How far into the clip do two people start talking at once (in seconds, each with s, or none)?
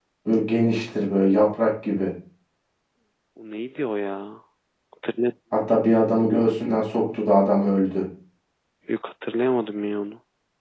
none